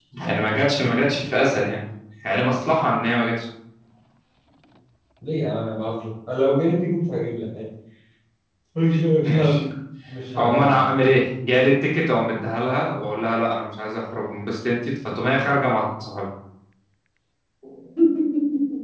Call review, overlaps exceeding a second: none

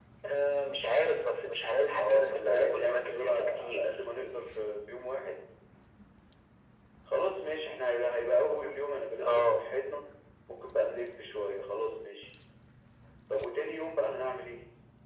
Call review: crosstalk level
present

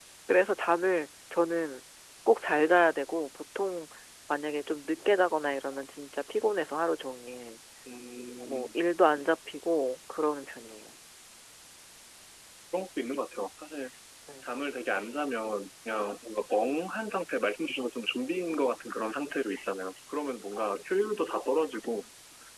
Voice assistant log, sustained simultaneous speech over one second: none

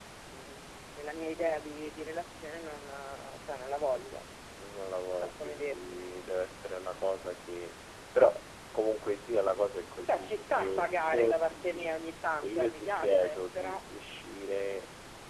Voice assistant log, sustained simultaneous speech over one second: present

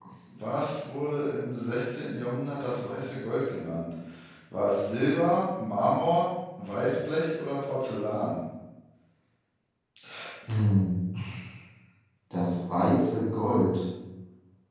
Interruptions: none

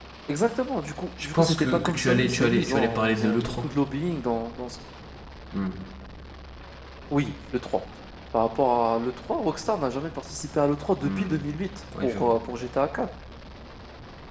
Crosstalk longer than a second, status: present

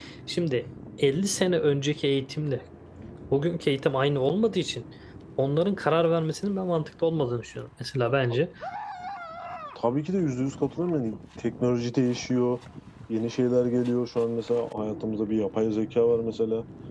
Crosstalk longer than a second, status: none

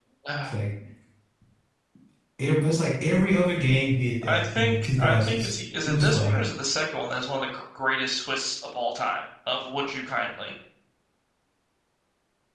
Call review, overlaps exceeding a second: present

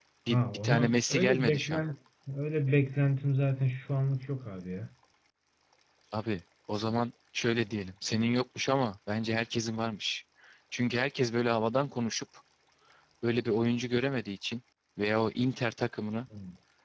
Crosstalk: present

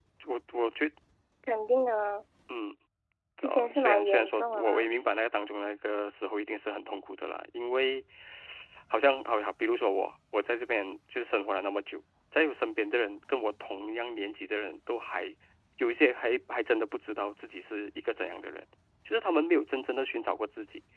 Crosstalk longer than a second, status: present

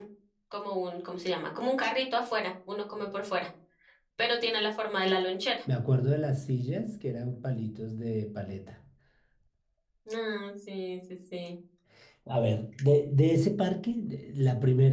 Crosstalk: none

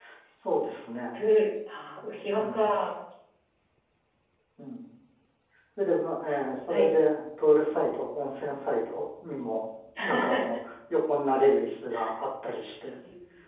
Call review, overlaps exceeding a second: none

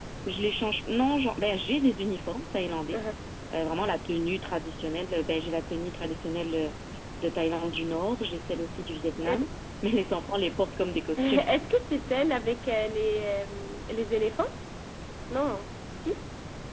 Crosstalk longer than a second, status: none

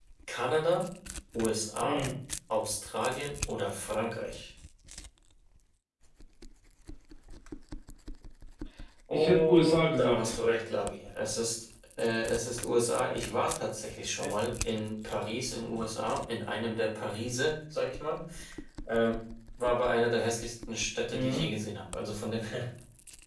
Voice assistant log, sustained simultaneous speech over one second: present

